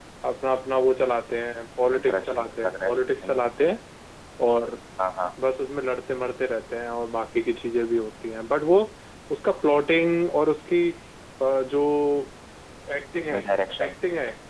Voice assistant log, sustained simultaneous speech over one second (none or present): present